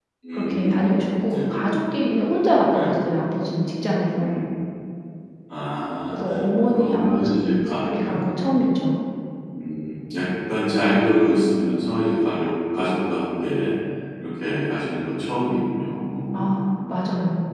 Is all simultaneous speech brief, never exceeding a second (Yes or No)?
No